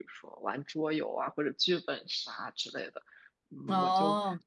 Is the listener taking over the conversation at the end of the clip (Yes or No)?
No